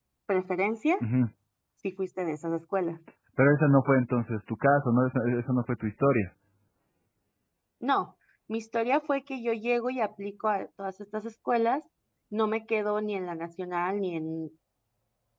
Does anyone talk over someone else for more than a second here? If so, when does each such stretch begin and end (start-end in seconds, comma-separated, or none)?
none